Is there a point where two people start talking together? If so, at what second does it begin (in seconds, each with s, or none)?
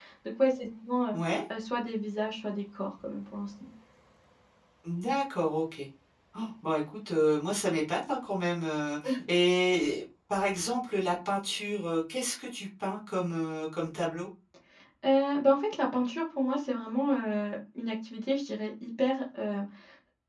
none